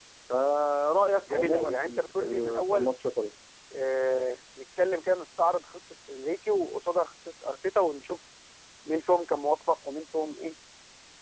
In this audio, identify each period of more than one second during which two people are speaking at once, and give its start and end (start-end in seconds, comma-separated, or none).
1.3-2.9